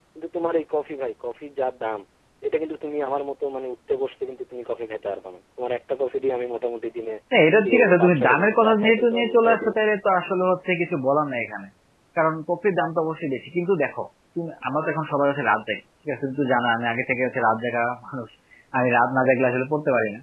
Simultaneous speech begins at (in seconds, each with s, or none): 7.6 s